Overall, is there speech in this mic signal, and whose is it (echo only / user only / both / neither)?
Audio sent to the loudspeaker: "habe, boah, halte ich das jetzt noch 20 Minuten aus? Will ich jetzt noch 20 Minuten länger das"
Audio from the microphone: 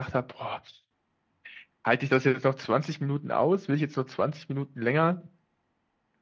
echo only